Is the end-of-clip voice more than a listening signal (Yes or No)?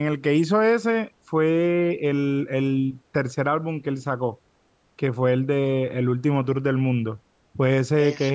No